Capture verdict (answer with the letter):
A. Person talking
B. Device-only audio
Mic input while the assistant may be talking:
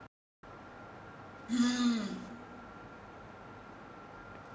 A